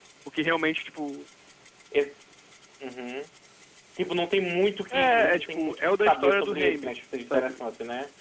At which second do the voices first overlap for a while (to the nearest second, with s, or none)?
5 s